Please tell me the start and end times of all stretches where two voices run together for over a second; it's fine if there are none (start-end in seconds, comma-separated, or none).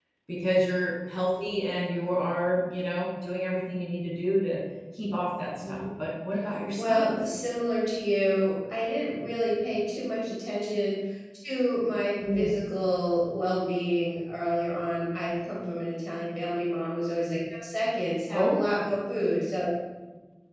none